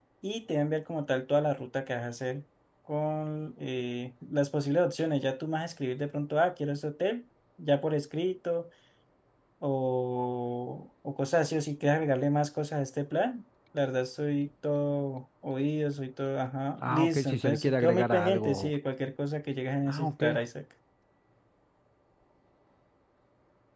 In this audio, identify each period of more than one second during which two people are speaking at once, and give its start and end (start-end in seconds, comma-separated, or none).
16.8-18.7